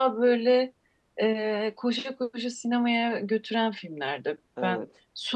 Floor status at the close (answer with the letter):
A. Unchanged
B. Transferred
A